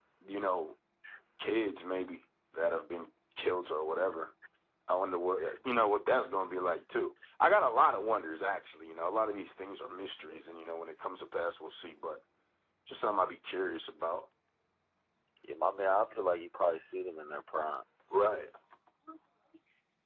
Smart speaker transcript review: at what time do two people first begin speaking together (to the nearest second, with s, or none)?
none